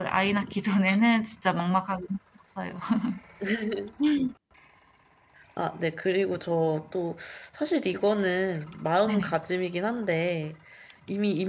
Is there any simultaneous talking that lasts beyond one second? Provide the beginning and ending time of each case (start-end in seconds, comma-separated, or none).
none